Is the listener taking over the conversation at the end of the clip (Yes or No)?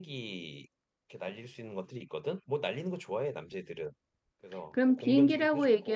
Yes